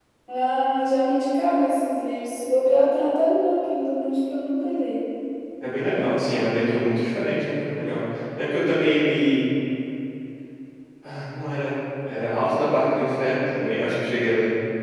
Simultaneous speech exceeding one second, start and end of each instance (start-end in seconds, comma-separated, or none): none